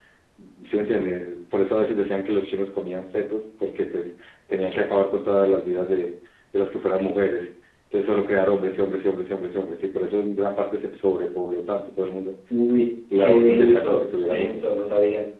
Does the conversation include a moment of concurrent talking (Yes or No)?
Yes